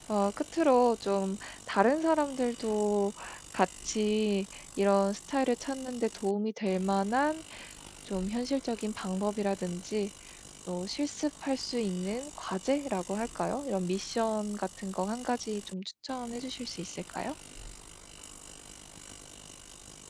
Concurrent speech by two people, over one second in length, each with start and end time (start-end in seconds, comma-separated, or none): none